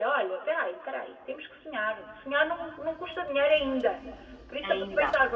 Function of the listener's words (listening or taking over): listening